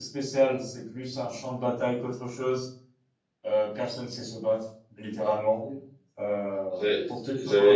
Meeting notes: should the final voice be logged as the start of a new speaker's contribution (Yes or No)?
Yes